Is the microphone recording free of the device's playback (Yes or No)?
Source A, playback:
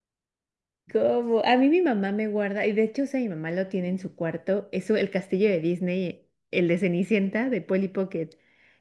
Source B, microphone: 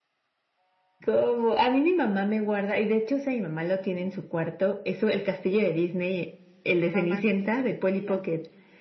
No